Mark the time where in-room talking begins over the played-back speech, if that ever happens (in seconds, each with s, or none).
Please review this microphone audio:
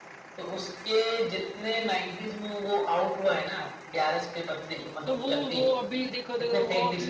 5.0 s